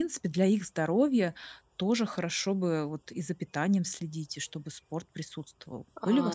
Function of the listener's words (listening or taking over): taking over